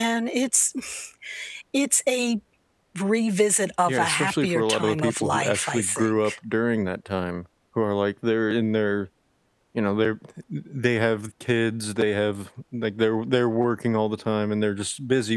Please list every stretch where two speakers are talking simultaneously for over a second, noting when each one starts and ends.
3.9-6.3

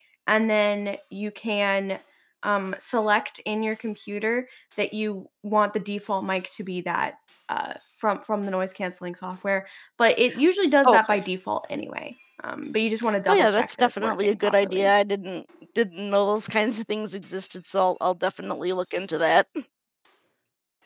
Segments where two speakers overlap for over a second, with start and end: 13.3-14.9

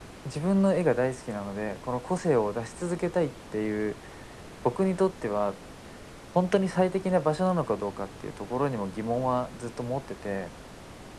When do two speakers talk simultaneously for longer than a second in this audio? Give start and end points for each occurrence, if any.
none

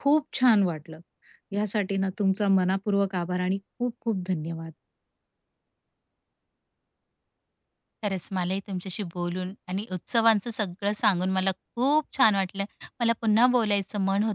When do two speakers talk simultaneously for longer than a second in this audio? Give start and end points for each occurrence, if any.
none

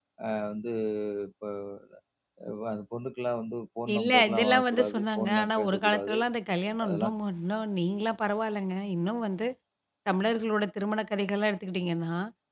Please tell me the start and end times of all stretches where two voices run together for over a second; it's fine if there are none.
4.0-6.2

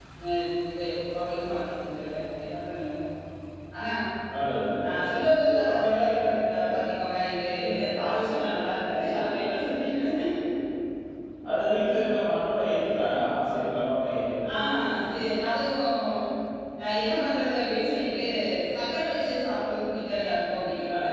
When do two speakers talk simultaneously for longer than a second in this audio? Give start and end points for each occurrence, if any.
none

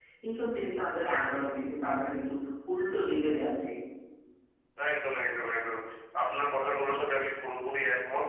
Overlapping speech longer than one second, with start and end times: none

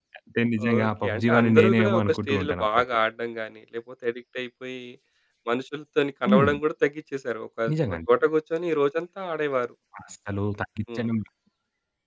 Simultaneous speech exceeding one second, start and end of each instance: 0.7-2.8

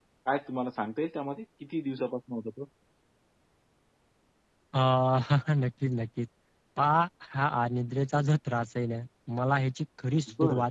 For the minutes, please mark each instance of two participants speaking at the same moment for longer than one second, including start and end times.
none

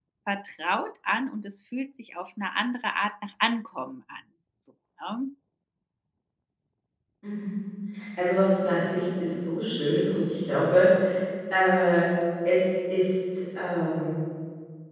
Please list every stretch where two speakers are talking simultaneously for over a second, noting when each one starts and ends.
none

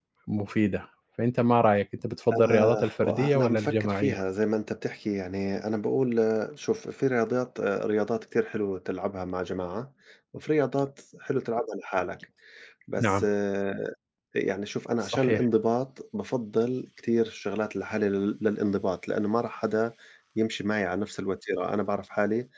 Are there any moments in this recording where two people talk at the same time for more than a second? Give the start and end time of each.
2.3-4.2

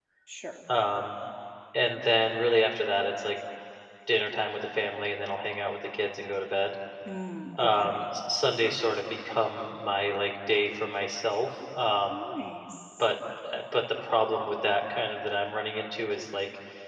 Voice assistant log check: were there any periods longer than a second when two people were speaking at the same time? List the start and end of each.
none

